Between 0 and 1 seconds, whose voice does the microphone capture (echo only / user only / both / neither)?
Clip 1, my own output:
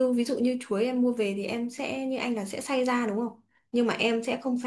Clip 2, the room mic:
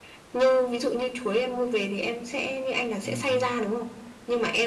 echo only